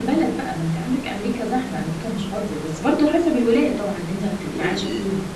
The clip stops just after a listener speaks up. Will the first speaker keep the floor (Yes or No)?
No